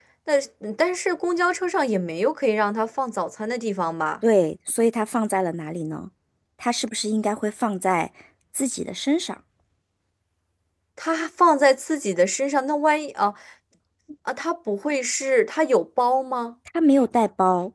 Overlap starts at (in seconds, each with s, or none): none